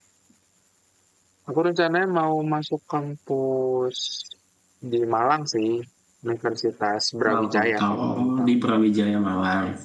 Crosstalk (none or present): present